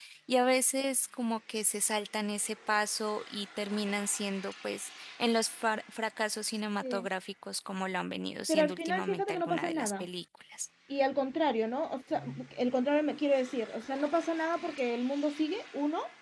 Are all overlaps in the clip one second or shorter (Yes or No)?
No